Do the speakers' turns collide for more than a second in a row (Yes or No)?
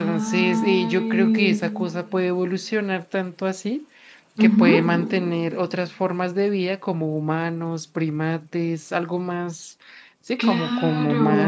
Yes